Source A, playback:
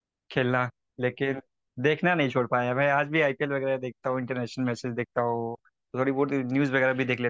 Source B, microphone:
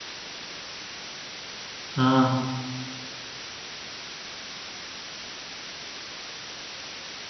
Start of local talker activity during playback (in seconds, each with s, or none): 1.9 s